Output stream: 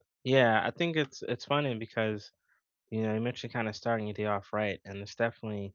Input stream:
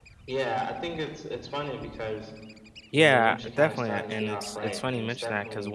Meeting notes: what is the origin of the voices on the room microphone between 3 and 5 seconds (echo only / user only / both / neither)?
both